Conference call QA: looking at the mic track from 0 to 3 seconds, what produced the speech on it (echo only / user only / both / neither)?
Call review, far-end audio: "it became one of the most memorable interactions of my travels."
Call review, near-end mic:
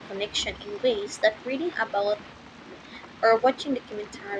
user only